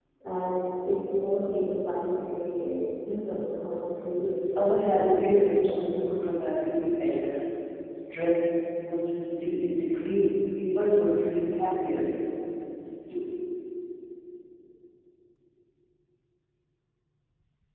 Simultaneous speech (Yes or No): Yes